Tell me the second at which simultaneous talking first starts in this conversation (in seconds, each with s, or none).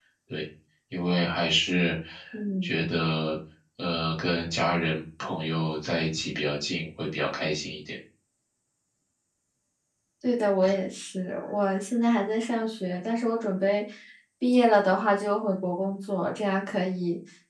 none